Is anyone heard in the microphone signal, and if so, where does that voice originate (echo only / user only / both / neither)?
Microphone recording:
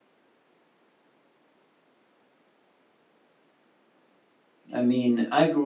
user only